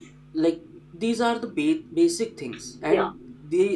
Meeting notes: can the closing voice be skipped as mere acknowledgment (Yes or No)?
Yes